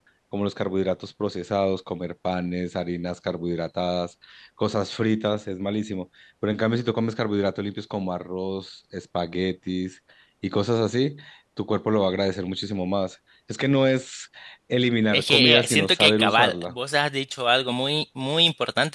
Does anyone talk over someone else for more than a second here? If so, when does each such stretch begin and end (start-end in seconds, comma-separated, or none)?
15.1-16.7